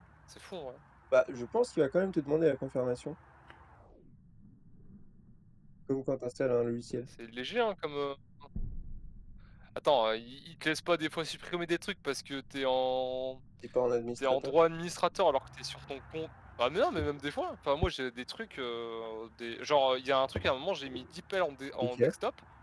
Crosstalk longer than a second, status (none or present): none